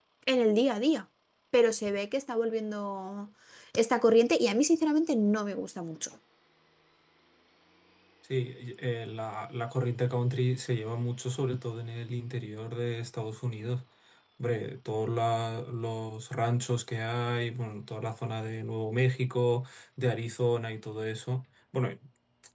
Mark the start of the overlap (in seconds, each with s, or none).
none